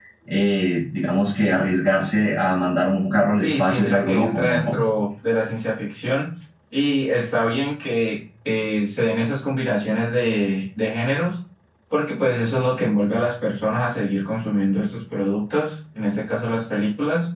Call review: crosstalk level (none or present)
present